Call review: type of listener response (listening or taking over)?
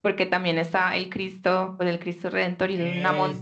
listening